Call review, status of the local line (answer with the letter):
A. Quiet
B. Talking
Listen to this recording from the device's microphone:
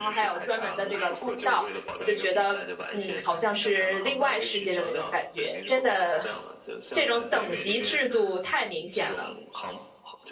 B